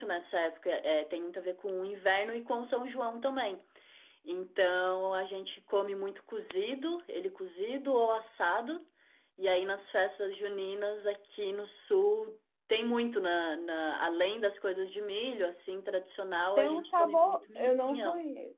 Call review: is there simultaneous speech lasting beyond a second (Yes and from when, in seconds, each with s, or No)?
Yes, from 16.6 s